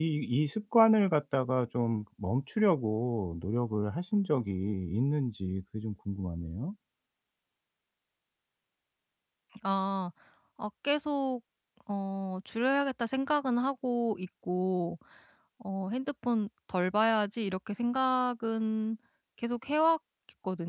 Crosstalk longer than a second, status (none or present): none